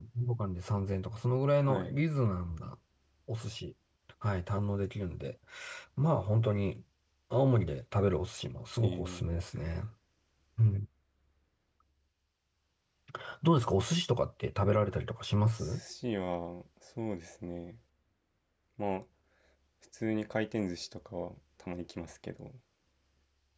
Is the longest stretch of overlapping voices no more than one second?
Yes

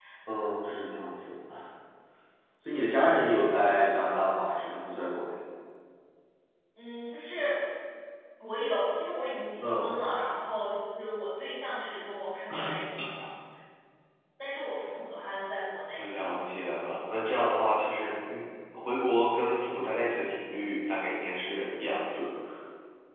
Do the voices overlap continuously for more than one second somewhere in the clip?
No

